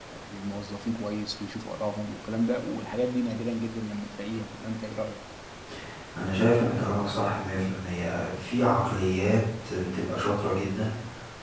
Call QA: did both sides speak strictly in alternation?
Yes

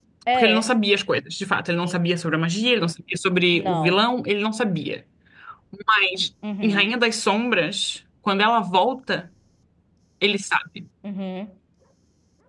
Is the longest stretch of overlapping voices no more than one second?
Yes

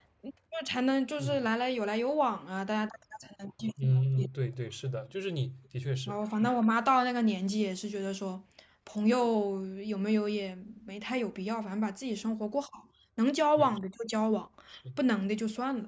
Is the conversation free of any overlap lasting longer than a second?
Yes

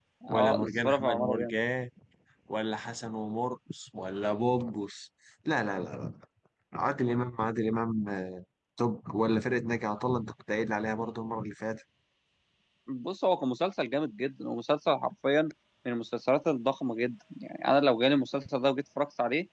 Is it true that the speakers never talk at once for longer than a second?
No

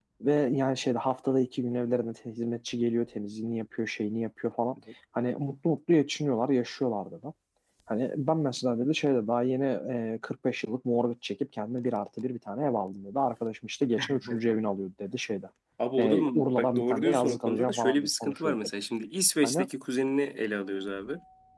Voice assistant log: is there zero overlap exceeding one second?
No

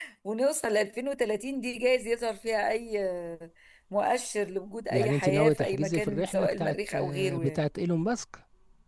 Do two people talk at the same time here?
Yes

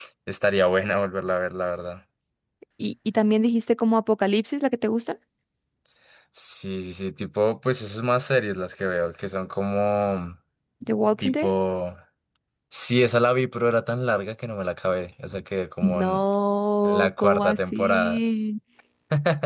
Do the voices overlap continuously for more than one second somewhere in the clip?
Yes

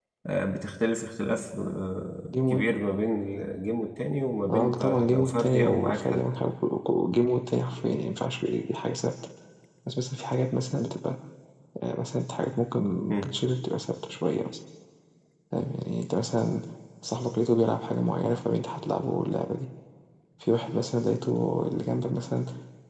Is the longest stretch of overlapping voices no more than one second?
No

